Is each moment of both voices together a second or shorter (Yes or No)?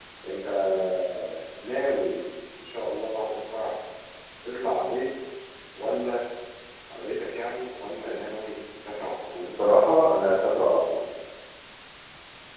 Yes